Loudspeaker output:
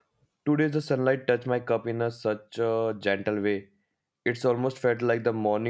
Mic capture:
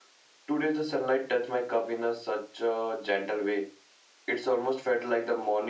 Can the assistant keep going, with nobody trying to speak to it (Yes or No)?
Yes